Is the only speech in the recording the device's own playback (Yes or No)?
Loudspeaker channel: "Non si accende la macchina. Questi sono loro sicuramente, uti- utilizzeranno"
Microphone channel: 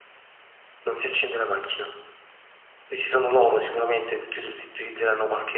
Yes